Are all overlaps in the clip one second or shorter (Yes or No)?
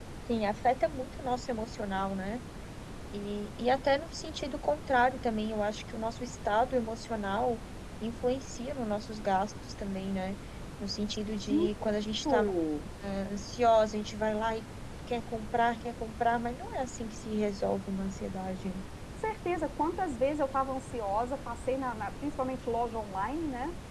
Yes